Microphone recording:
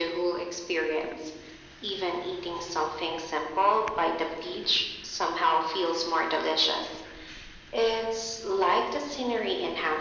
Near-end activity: none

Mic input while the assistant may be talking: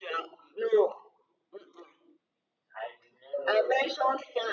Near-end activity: none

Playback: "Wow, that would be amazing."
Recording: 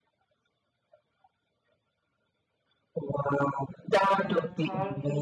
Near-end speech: present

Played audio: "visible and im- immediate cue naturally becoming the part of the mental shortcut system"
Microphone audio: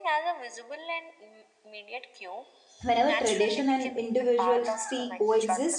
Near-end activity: present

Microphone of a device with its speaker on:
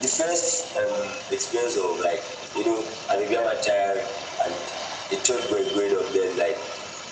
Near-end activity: none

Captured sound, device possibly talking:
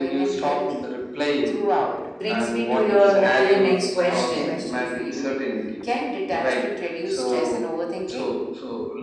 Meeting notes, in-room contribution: present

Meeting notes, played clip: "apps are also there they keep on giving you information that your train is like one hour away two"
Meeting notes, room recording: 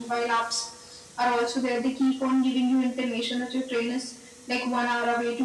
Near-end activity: none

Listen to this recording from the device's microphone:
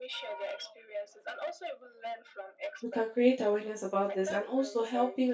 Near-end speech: present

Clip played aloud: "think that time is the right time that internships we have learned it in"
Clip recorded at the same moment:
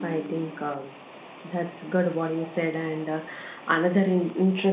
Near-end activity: present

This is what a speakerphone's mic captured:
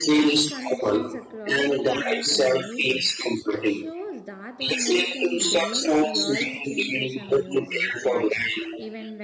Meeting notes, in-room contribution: present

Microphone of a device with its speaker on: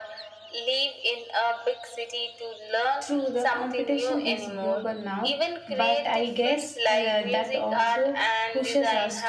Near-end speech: present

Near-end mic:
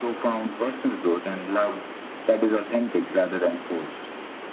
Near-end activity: none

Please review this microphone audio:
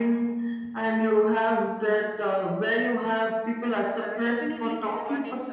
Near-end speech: present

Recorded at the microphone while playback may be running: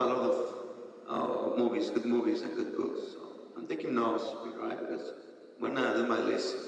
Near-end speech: none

